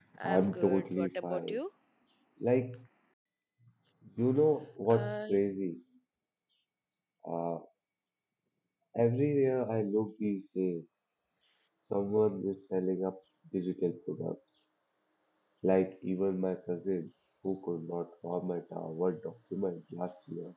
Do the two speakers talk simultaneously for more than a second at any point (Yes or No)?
Yes